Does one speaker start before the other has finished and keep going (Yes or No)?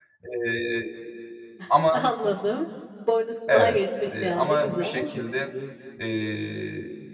Yes